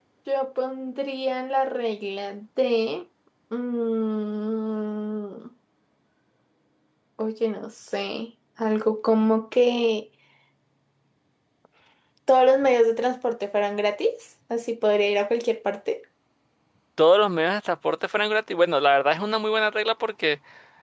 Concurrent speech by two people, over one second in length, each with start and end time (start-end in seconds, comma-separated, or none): none